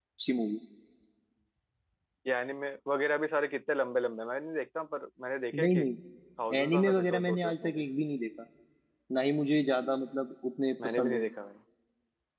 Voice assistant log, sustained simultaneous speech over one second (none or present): present